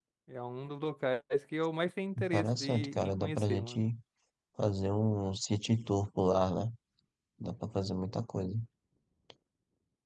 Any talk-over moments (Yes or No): Yes